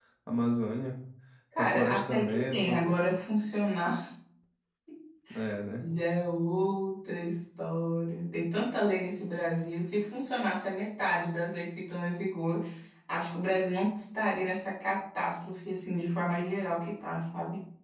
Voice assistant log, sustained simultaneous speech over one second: present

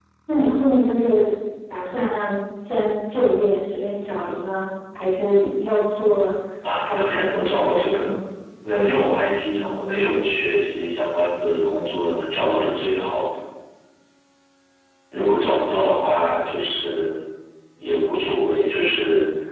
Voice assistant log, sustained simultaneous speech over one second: present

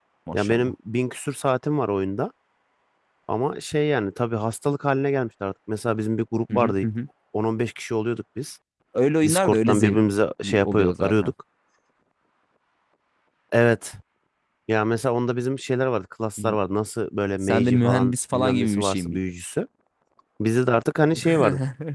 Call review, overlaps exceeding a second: present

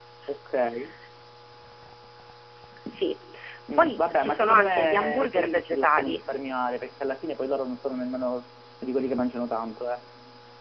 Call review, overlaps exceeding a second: present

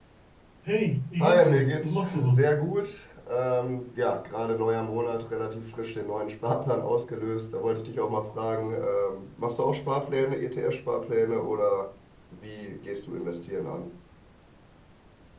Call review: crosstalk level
present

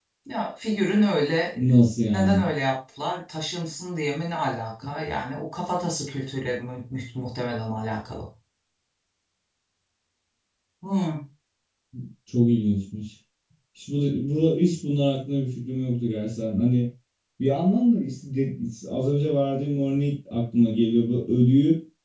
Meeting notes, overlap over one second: none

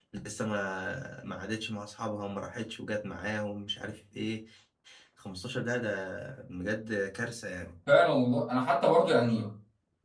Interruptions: none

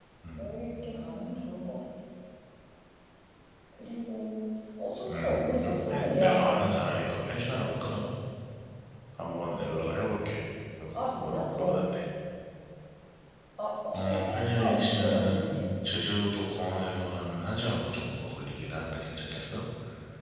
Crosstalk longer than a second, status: present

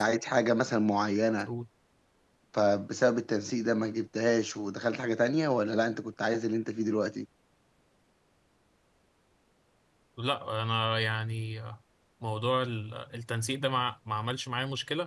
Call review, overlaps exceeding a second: none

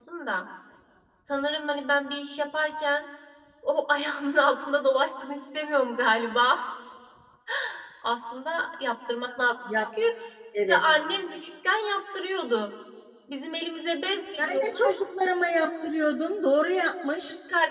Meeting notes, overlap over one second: none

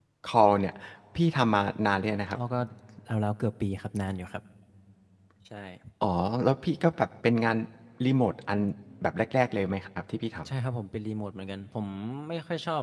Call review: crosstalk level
none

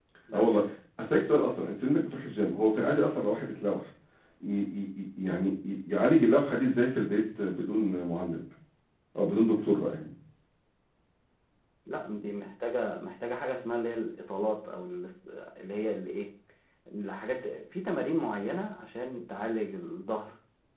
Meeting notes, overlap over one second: none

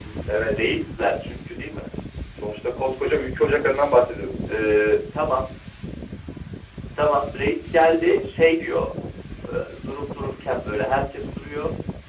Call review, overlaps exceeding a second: none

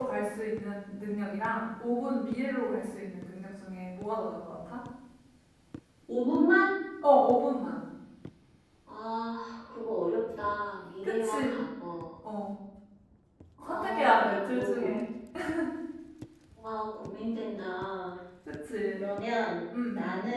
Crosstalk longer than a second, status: present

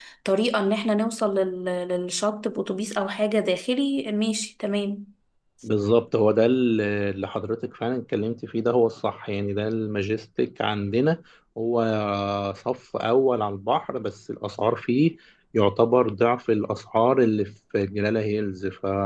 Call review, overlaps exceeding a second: none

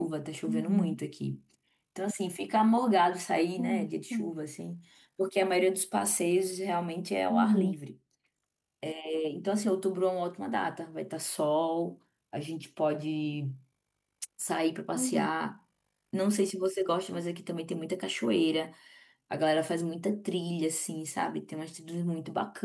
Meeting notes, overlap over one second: none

